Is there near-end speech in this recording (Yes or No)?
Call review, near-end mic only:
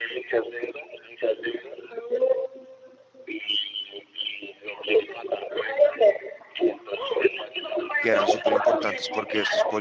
Yes